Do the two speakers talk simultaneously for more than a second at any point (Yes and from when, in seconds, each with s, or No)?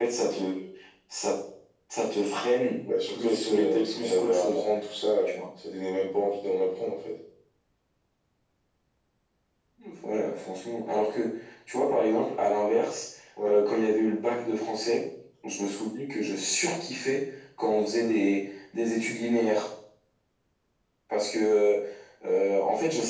Yes, from 3.1 s